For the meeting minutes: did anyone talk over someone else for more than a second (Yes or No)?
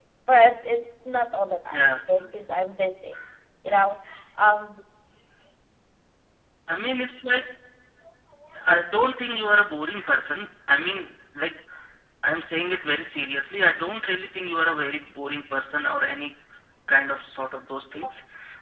No